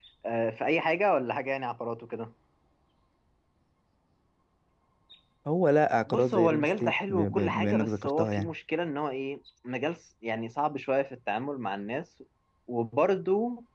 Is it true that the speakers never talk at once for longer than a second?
No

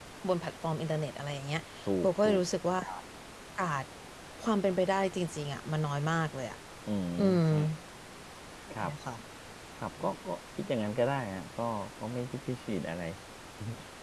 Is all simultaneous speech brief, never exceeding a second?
Yes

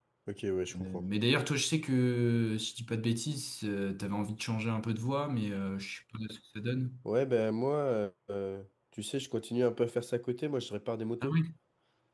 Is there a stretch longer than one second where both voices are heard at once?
No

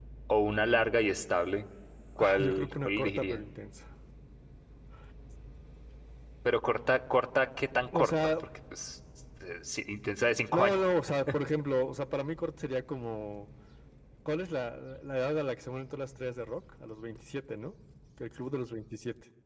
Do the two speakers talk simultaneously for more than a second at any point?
Yes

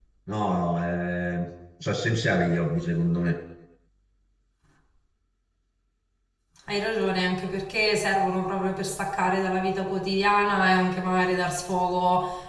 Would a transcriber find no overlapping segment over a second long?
Yes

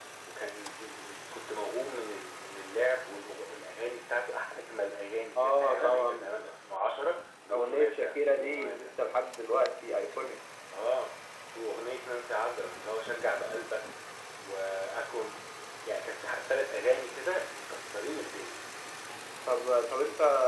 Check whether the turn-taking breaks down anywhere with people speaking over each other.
Yes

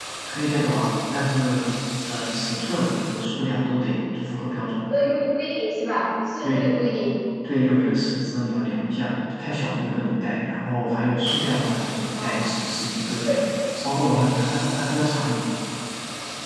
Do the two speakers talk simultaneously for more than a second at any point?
No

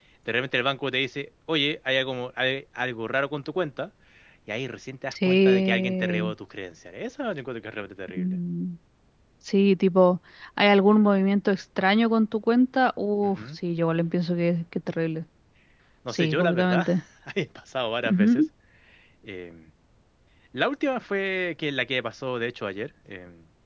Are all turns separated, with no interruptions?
No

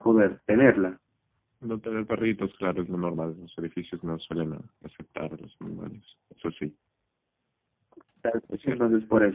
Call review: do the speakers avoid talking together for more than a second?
Yes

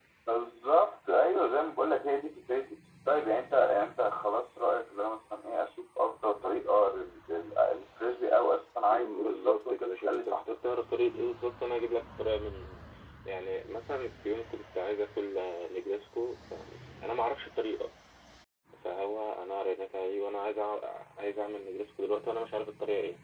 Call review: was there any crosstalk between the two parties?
Yes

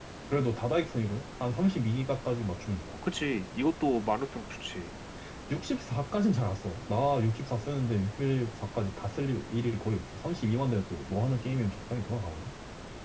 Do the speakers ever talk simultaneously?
No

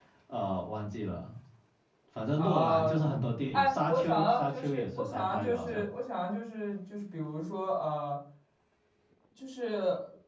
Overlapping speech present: Yes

